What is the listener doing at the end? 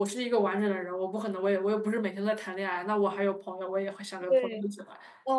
taking over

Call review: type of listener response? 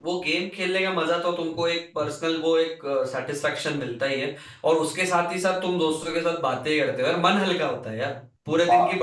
listening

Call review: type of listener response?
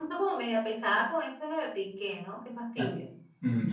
taking over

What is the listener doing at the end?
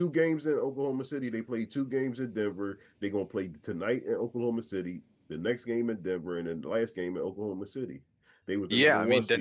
taking over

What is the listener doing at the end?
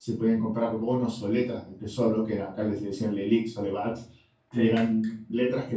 listening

